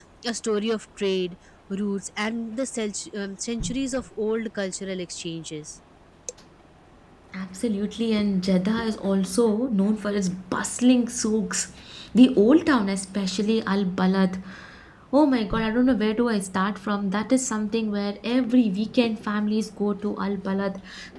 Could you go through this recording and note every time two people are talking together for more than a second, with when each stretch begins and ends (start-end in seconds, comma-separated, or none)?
none